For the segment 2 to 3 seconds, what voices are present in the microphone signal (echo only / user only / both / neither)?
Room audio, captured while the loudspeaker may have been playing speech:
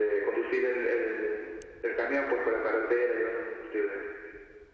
echo only